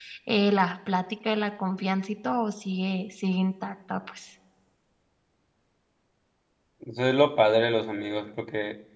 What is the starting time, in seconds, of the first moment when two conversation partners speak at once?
none

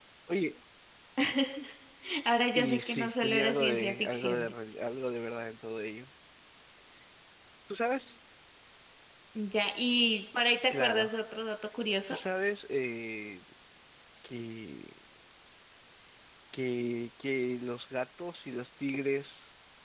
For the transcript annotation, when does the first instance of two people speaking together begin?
2.5 s

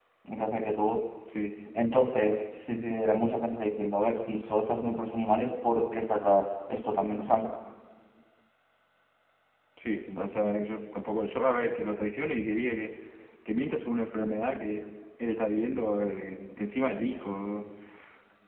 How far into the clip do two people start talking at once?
none

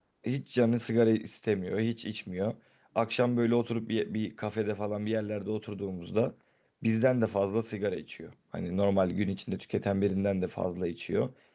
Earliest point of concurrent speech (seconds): none

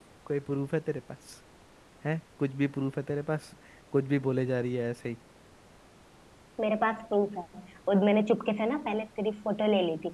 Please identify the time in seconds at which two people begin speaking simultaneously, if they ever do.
none

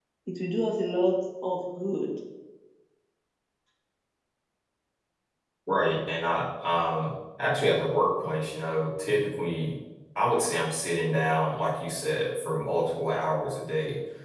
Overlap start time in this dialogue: none

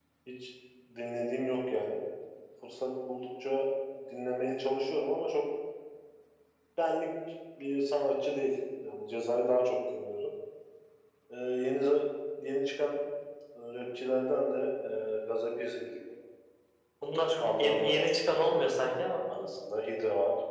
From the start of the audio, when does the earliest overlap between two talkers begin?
17.4 s

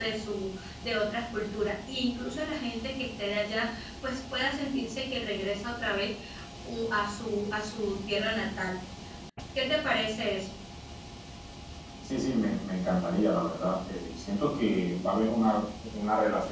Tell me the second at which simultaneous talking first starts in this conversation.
none

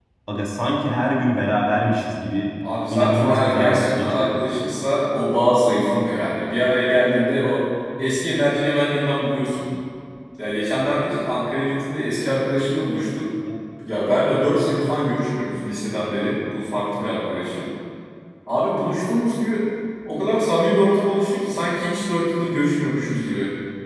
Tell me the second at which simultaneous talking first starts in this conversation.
2.9 s

